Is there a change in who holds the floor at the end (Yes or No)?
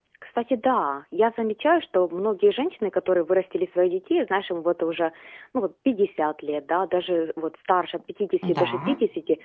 No